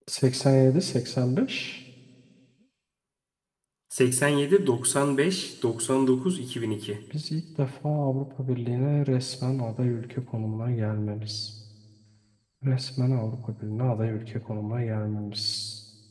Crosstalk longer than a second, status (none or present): none